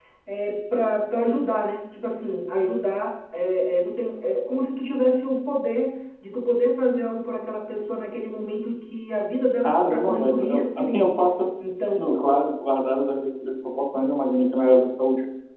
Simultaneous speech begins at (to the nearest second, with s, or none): 10 s